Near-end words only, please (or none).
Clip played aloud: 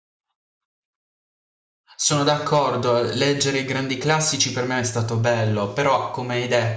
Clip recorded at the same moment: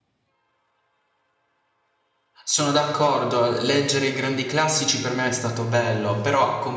none